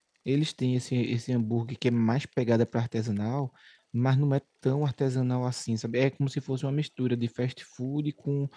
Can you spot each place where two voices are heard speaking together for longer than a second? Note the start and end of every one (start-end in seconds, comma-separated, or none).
none